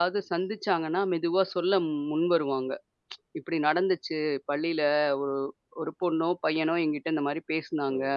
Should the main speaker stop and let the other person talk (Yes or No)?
Yes